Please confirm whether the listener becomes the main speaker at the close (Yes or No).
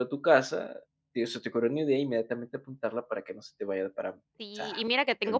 Yes